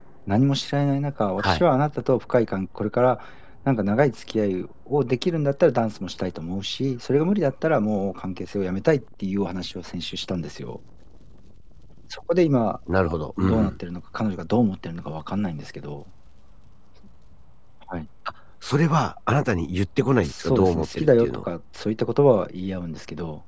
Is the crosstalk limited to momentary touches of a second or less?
No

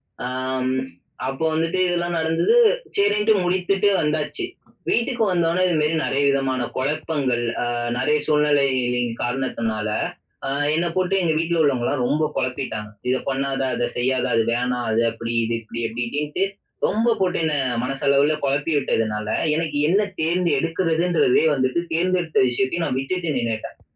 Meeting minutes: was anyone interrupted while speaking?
No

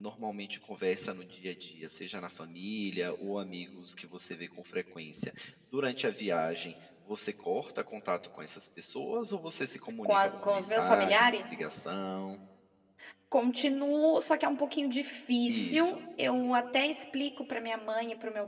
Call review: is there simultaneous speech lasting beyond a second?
Yes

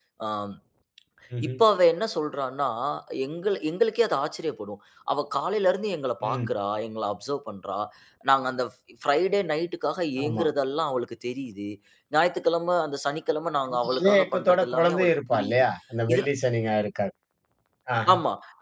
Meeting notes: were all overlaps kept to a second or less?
No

